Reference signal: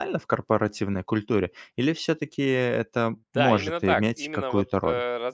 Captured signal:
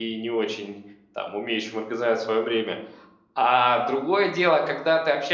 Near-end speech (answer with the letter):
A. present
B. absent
A